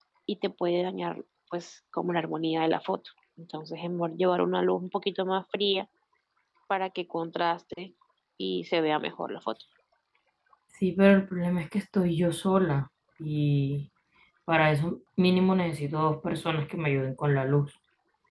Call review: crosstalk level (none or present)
none